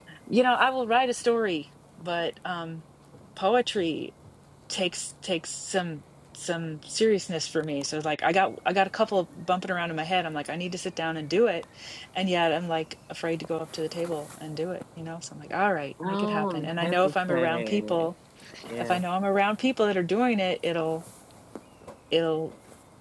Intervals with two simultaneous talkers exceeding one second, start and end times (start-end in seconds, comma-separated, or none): 16.0-18.1